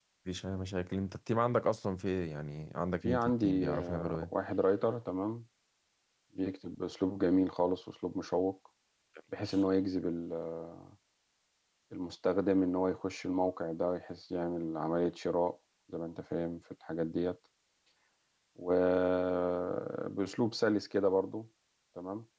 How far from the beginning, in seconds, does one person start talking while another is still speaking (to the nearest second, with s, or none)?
3 s